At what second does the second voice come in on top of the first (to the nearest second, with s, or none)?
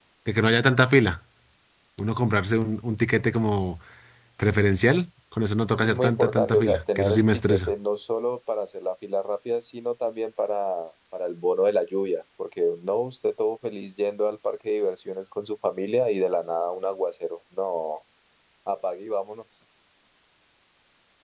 6 s